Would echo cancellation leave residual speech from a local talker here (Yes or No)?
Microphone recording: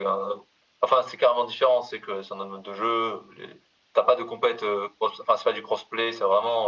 No